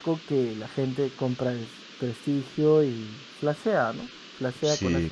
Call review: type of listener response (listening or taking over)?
taking over